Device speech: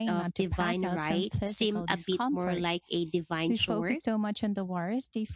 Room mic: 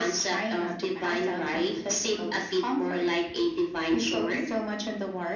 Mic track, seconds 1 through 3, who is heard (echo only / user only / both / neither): echo only